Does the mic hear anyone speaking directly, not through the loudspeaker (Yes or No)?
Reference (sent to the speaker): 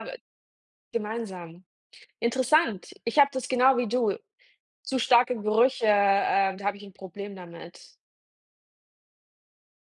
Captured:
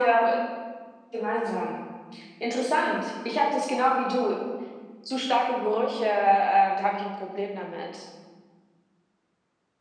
No